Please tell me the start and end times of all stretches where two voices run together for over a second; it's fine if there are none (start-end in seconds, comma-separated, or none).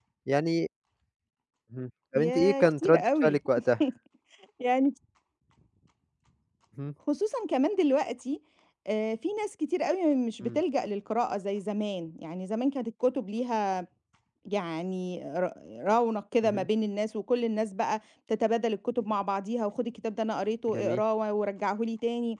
2.1-3.4